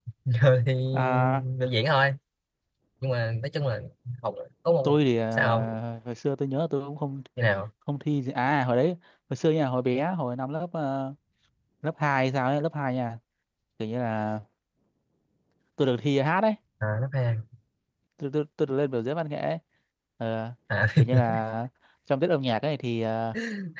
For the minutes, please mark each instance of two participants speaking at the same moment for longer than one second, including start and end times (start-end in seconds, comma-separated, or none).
none